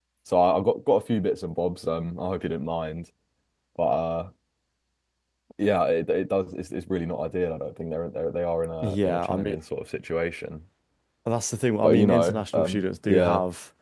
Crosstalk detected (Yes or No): Yes